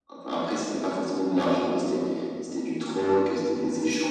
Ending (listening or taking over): listening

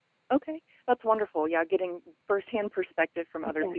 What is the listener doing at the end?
listening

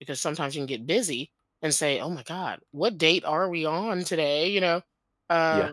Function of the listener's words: listening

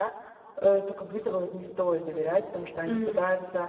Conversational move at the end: listening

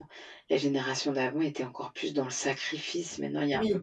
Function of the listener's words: taking over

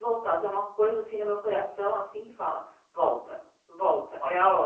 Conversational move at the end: listening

